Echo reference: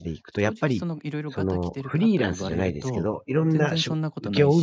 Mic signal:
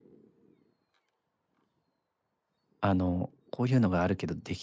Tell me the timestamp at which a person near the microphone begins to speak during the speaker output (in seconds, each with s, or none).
2.8 s